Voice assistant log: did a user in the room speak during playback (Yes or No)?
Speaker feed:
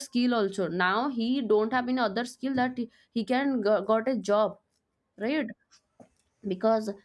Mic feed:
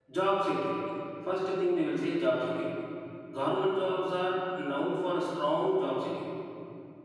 Yes